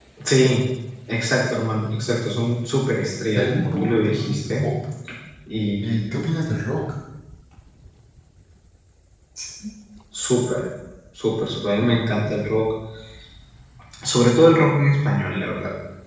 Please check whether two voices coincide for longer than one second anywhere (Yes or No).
Yes